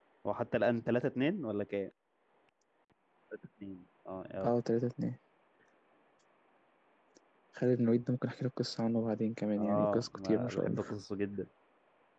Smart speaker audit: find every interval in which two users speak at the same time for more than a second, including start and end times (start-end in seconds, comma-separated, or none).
9.6-10.8